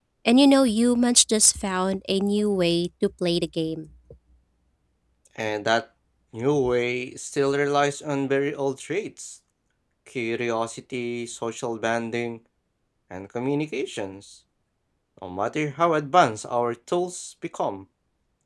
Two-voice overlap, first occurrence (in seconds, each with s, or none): none